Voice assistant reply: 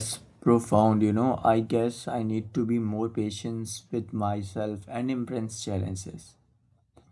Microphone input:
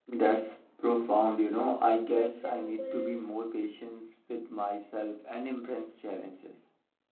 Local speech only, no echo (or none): For example,